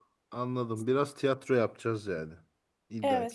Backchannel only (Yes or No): No